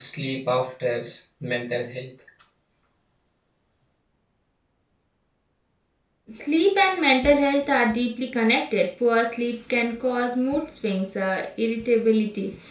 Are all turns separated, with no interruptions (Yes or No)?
Yes